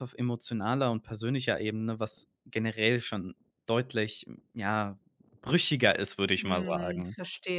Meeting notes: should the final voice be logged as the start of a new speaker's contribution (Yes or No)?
Yes